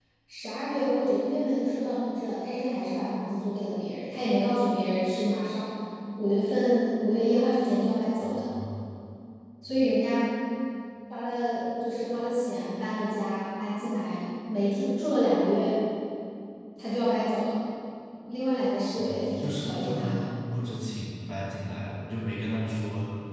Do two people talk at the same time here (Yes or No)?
Yes